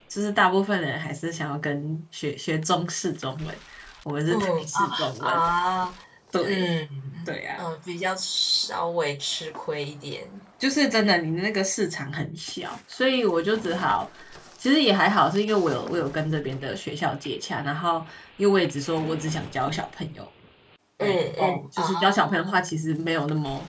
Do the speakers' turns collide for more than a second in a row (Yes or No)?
Yes